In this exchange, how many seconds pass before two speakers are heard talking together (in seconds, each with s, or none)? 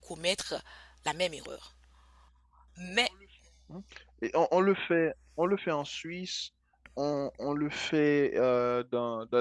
none